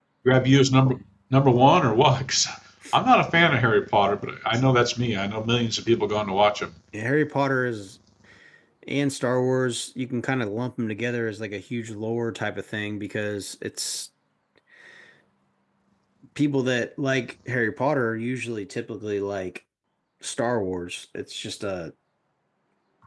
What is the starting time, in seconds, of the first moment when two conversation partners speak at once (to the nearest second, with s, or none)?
none